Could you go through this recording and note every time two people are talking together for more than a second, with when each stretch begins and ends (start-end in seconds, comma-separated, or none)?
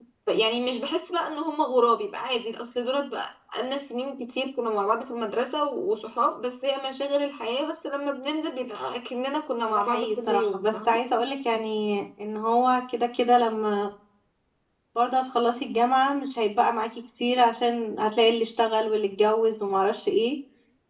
9.7-11.0